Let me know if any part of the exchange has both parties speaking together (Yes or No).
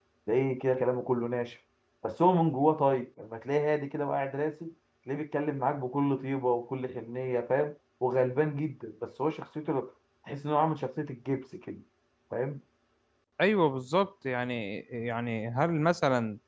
No